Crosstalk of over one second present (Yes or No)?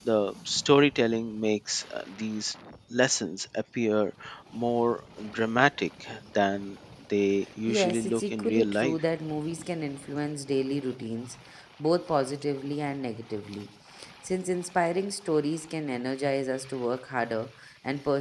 Yes